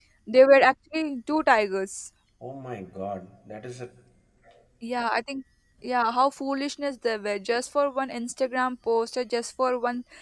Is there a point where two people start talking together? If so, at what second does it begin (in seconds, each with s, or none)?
none